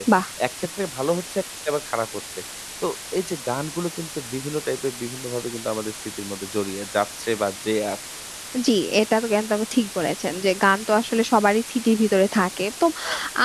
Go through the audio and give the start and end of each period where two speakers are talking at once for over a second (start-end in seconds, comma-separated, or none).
none